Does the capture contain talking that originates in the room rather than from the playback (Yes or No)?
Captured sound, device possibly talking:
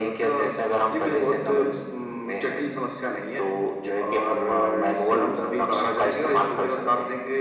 No